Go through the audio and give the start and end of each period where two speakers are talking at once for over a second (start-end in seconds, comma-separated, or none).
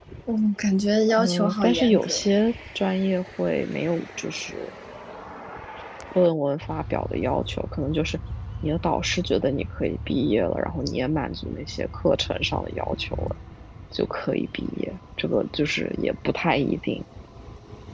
1.1-2.4